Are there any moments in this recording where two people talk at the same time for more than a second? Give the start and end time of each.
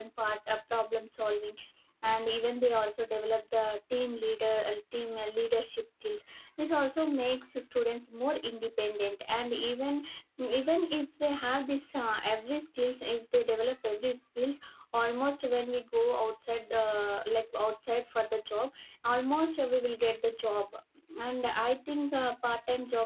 none

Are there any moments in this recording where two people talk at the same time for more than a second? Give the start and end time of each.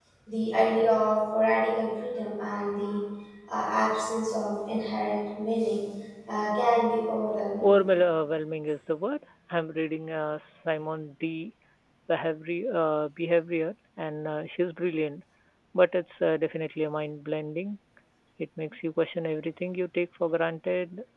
none

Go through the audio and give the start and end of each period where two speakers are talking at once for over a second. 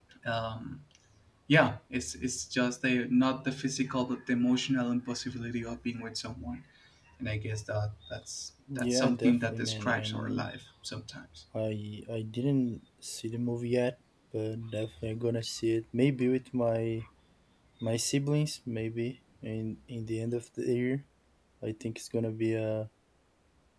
8.8-10.5

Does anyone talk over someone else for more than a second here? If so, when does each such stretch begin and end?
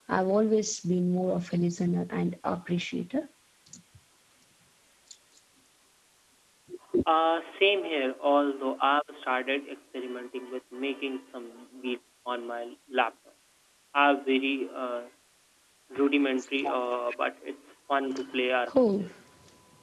none

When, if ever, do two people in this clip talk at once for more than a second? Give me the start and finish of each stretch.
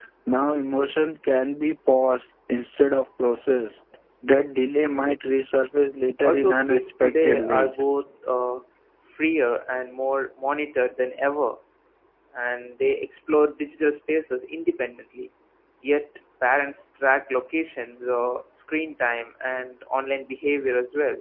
6.2-7.7

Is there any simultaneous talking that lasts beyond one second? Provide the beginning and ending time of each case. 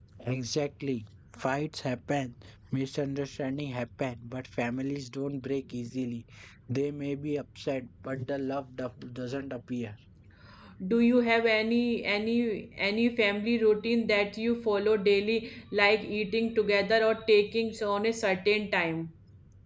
none

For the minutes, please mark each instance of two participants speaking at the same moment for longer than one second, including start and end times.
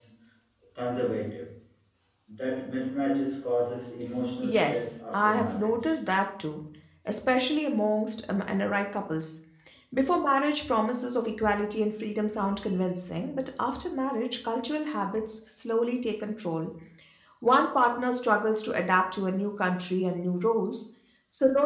4.4-5.9

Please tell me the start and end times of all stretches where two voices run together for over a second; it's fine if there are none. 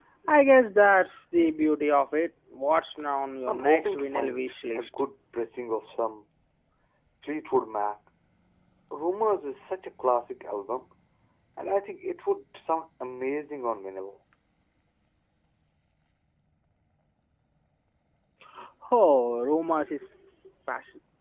3.5-4.9

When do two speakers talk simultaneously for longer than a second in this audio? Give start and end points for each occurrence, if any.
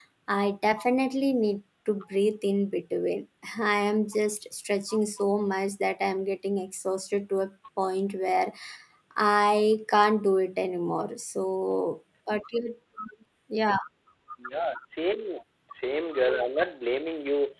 none

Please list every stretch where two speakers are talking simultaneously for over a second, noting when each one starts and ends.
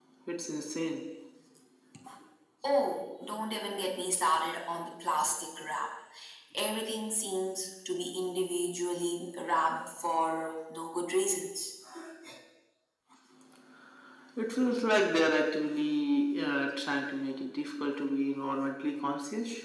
none

